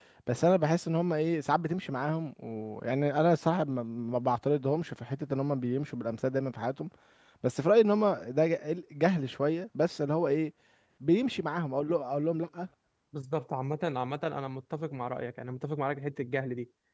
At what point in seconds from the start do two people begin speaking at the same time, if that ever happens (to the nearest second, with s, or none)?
none